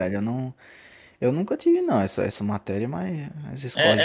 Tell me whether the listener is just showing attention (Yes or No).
No